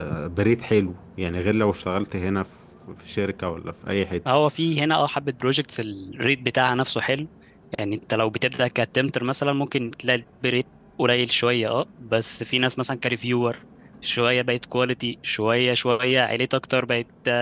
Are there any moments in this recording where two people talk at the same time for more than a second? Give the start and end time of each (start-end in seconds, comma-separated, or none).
none